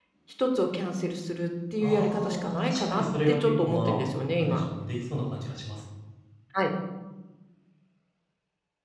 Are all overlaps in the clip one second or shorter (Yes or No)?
No